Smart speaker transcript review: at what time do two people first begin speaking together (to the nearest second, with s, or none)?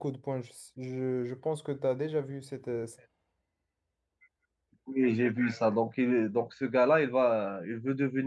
none